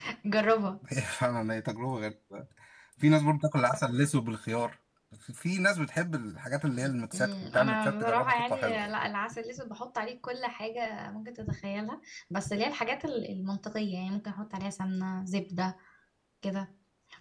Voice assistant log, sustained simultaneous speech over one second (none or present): present